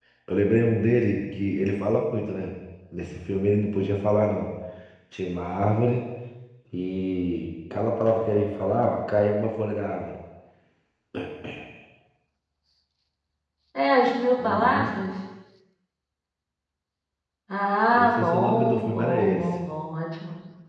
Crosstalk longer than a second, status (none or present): present